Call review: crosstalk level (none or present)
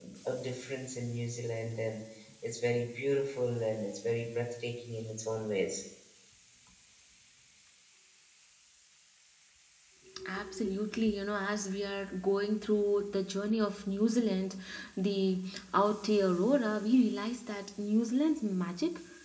none